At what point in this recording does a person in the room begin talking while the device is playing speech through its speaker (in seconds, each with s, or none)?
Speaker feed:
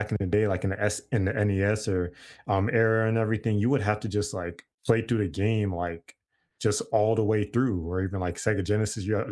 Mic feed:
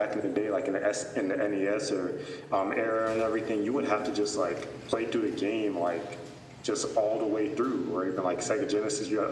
none